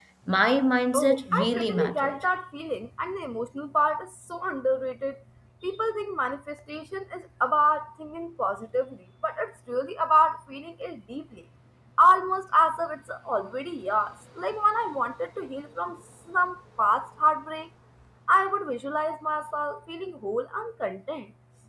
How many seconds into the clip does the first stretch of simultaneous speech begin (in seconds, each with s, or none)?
0.9 s